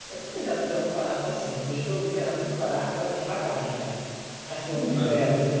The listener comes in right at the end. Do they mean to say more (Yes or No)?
Yes